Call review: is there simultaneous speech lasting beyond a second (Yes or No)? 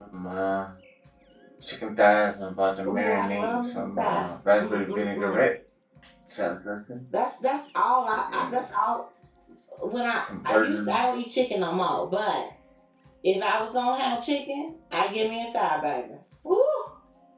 Yes